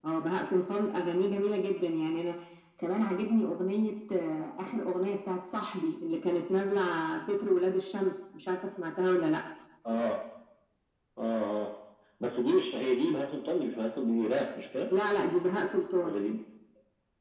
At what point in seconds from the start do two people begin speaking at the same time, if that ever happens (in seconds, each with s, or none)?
none